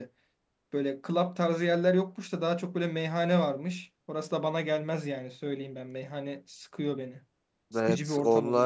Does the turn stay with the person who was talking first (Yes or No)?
No